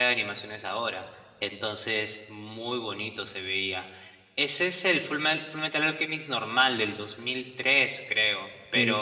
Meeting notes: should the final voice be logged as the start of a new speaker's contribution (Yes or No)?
No